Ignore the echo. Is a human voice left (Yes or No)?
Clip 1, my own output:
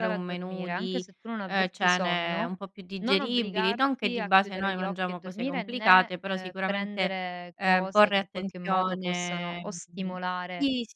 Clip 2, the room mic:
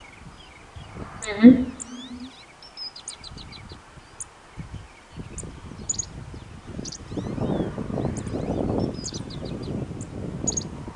Yes